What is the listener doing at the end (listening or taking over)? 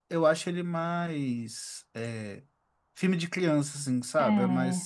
listening